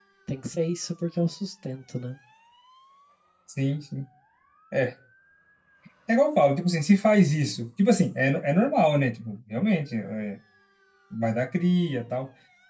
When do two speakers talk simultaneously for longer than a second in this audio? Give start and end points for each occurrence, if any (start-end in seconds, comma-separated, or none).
none